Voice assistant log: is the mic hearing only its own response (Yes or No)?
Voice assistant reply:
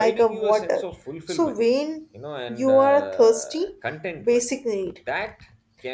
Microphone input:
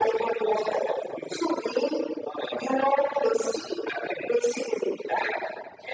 Yes